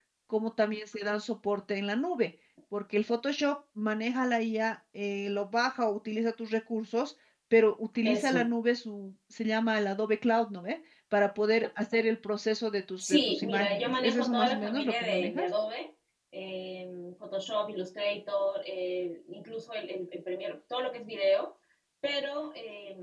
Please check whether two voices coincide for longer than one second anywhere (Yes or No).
Yes